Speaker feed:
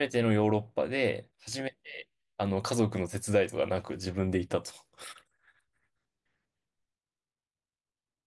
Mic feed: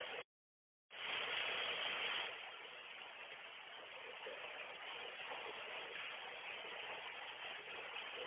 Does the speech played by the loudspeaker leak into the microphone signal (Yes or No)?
No